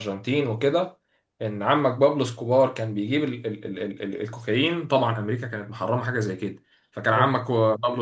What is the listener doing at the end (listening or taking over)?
listening